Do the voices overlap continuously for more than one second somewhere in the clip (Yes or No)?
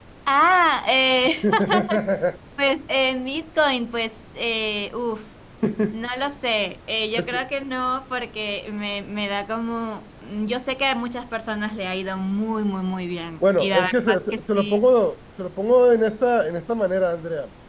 Yes